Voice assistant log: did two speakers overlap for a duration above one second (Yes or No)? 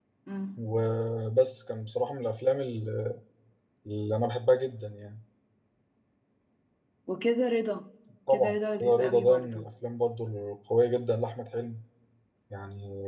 Yes